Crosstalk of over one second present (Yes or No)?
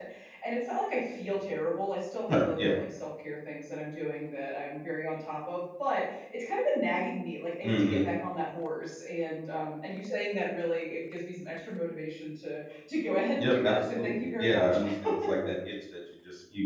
Yes